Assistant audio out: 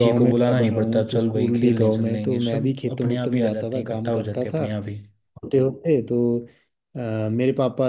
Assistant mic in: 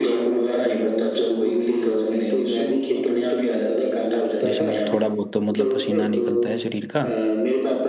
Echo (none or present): present